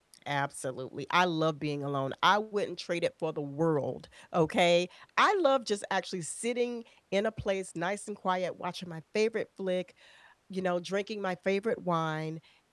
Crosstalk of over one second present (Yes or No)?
No